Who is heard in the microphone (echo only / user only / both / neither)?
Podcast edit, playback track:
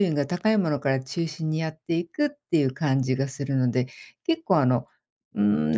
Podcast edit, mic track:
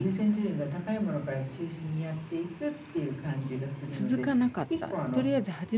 both